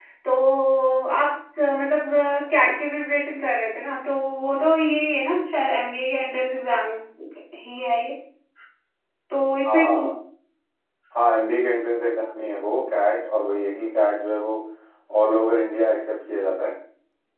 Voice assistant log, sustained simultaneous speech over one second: none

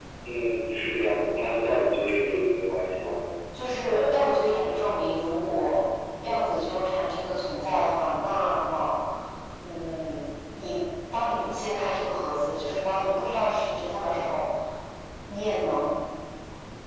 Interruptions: none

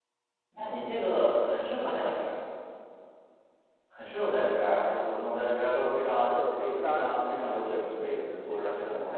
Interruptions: present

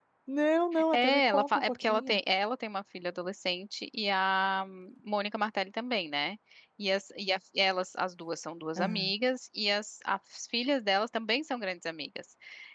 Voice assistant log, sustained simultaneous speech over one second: present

